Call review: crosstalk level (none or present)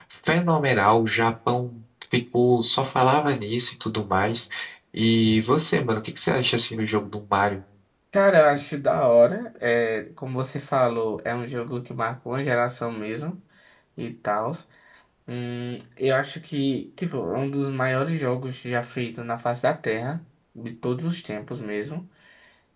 none